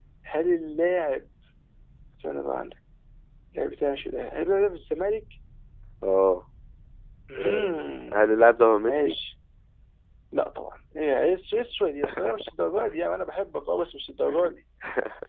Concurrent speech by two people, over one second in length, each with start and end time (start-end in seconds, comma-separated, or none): none